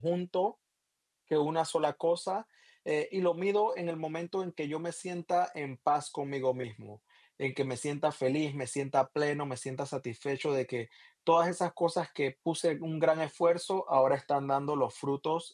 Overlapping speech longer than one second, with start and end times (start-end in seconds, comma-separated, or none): none